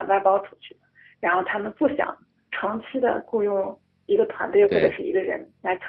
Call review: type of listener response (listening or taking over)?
listening